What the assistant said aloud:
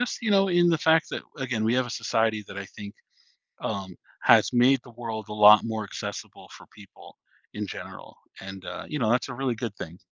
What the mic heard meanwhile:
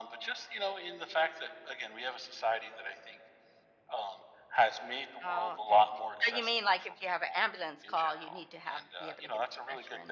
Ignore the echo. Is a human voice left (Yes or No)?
Yes